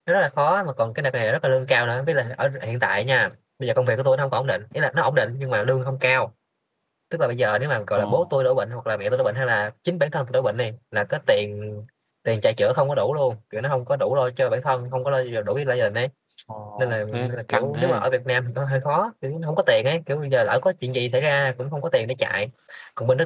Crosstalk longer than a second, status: present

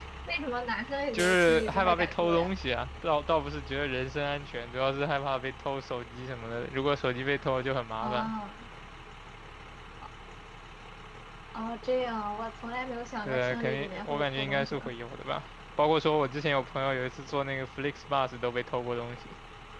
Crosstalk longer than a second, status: present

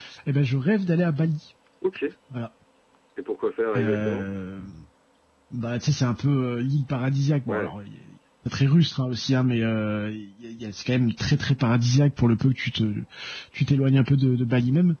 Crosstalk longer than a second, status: none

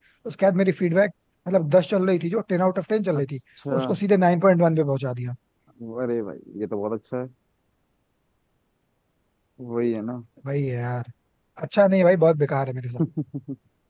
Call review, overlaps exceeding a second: none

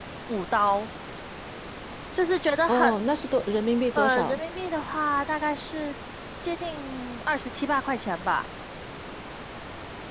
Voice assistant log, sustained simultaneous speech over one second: none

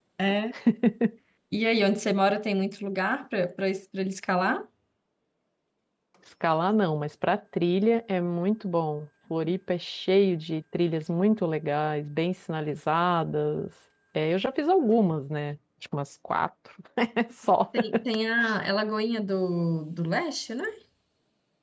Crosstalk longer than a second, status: none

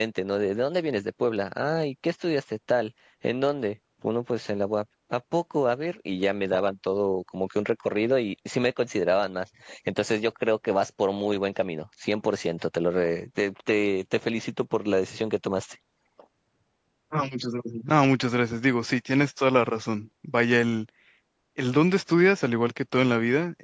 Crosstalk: none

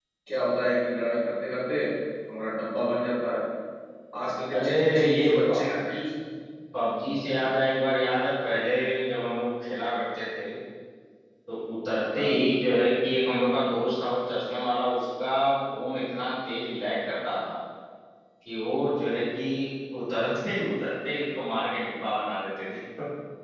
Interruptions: present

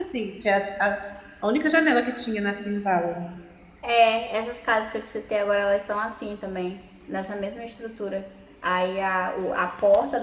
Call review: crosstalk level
none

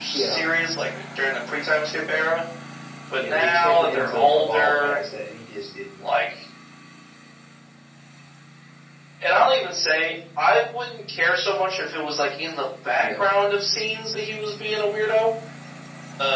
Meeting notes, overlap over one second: present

